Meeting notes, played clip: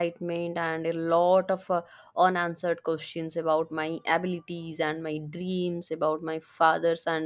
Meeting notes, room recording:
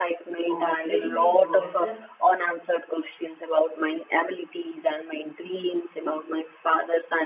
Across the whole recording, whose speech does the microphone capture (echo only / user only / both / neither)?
both